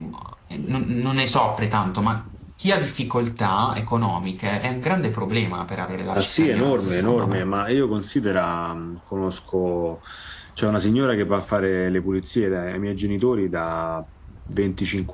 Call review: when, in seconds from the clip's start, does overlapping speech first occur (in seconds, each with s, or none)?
6.1 s